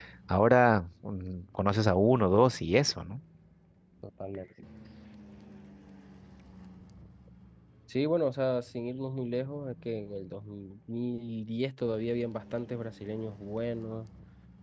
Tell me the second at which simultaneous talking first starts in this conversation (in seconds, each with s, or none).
none